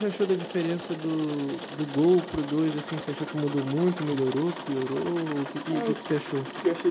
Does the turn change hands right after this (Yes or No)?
Yes